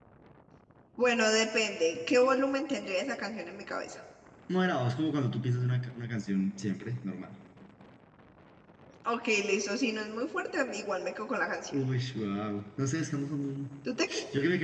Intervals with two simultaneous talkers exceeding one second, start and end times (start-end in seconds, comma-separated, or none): none